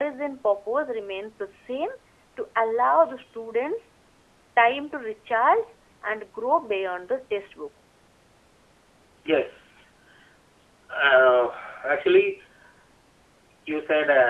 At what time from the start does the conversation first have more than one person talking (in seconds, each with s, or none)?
none